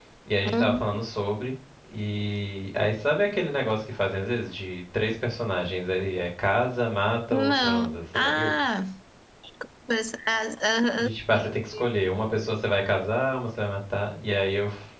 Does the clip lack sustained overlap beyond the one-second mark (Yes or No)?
No